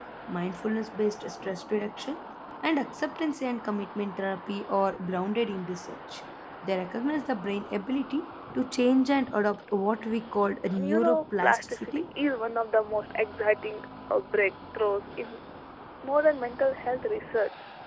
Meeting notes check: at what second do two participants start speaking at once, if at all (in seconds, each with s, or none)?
10.8 s